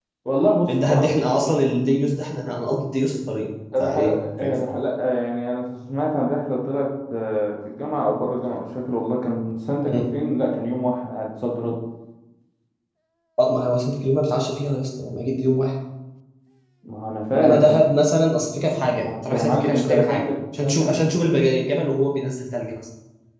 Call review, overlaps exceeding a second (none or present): present